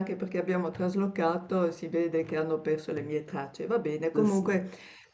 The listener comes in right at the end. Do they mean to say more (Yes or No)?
No